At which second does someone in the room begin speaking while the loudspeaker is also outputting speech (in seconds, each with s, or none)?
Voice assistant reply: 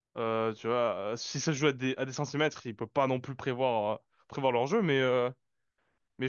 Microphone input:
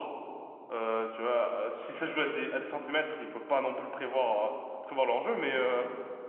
none